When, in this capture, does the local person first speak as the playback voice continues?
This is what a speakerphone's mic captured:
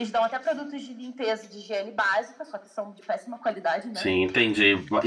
3.9 s

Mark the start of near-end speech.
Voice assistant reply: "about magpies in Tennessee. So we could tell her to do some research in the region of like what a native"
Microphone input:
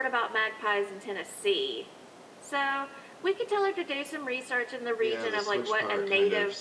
5.0 s

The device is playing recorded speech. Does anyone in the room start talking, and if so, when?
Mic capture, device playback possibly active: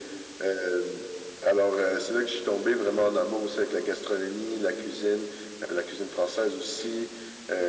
none

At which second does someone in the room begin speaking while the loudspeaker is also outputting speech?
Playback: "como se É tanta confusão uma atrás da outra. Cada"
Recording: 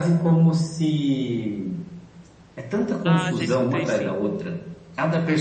3.0 s

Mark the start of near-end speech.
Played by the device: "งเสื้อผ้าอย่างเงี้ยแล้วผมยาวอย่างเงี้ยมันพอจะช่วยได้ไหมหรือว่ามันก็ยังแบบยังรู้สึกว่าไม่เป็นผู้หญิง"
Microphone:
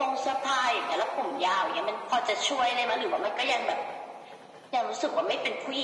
none

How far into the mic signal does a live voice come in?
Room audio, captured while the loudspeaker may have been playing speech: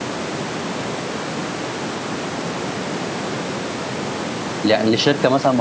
4.6 s

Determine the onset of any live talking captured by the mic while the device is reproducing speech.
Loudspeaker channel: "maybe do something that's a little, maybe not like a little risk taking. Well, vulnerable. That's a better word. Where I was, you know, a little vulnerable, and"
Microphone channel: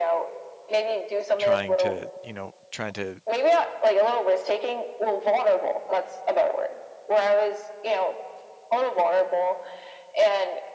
1.4 s

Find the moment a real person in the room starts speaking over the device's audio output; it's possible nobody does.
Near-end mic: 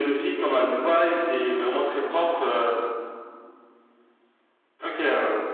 none

